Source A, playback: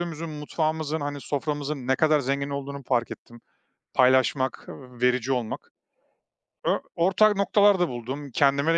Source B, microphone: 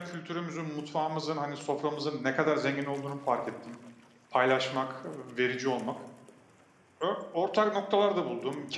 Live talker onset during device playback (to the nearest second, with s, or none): none